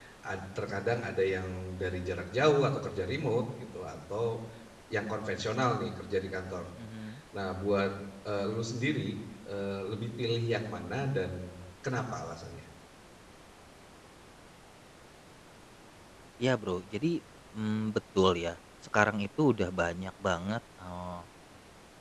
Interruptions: none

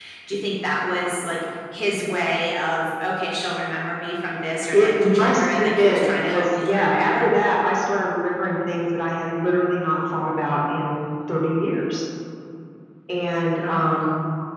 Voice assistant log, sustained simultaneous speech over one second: present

